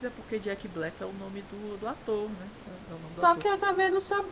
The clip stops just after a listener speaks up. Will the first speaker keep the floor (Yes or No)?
No